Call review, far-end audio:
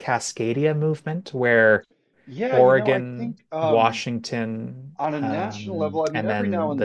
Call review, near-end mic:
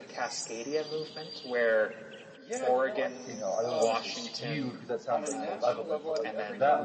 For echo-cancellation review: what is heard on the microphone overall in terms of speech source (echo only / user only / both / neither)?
both